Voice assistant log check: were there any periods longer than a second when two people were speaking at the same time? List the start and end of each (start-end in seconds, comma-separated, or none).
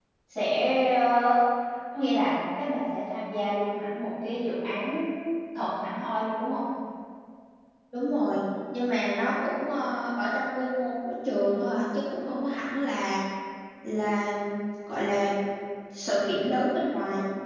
none